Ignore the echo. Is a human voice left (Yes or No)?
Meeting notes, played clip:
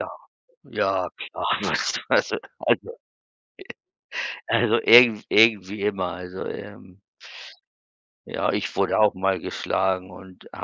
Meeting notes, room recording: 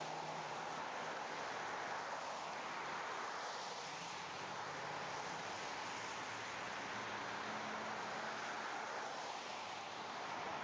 No